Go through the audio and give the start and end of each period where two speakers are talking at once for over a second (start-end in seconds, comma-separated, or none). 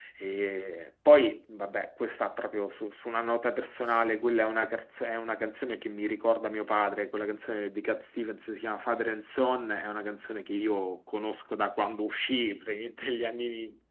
none